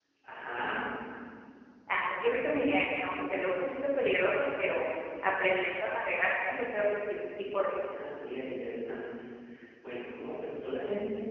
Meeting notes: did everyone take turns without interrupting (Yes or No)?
Yes